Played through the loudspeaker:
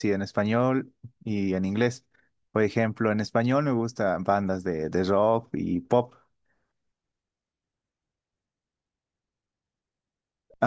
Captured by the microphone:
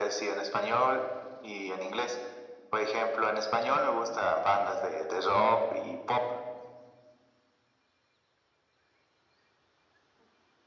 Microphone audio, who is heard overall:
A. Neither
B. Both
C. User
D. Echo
D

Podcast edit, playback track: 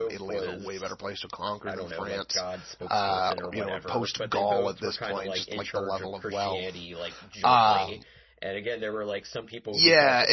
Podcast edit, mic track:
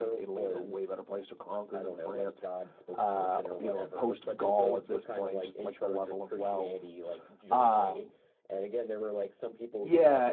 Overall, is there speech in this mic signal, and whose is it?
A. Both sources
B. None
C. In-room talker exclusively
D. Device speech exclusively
D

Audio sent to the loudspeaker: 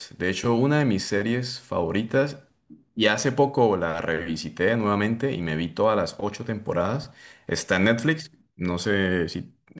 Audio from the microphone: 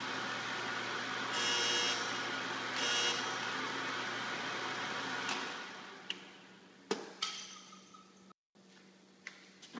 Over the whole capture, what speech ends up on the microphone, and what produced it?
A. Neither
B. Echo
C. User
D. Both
A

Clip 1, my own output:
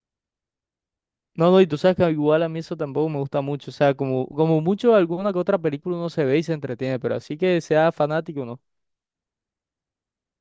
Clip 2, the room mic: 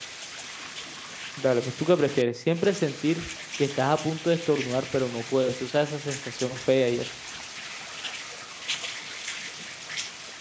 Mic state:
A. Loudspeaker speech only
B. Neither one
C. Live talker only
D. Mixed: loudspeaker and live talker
C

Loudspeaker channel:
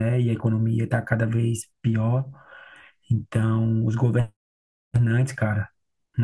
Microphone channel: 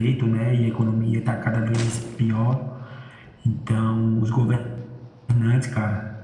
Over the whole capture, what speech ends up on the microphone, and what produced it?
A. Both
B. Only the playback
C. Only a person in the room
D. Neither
B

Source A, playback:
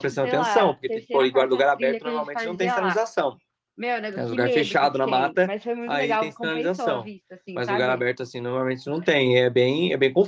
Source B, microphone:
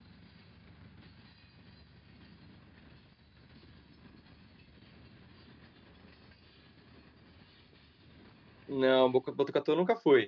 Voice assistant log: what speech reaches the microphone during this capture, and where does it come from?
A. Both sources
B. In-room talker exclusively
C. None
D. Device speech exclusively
B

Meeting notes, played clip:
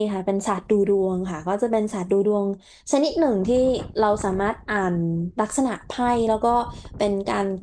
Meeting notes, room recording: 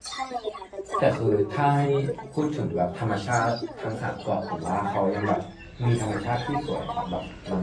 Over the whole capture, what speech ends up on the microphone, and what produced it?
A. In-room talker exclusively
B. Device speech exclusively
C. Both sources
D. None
C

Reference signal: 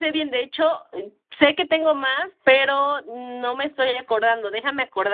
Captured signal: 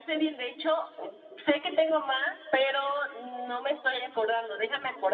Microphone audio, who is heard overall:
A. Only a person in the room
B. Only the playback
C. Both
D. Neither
B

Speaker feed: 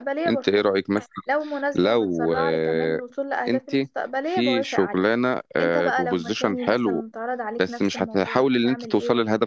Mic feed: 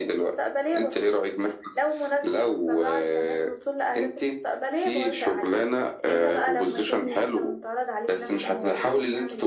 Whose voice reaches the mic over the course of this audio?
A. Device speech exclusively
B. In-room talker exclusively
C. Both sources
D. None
A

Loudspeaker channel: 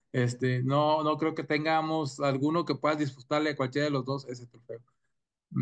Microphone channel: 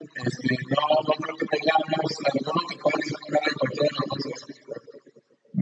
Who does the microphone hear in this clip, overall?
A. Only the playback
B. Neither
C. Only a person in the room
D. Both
A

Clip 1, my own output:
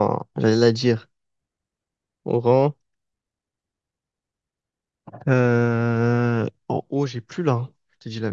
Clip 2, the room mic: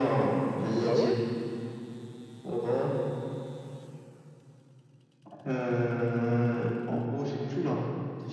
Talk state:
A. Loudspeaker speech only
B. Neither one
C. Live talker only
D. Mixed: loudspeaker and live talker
D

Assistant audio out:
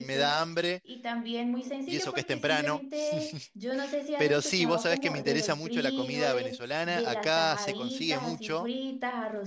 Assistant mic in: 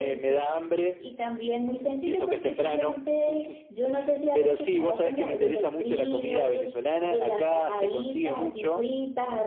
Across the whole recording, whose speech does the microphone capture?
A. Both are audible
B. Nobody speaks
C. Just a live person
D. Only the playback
D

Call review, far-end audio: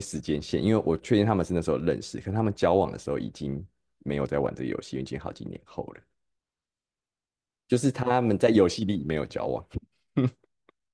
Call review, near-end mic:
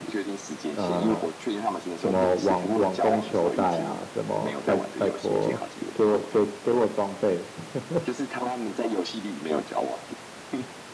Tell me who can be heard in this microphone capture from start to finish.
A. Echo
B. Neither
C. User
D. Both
D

